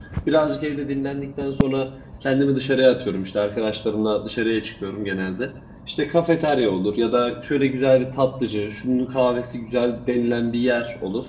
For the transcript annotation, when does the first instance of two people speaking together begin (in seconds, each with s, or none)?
none